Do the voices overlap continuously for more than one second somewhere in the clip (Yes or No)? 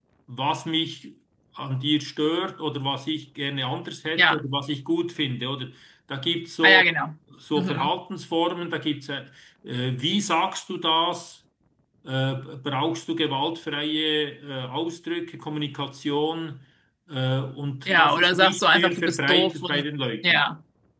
Yes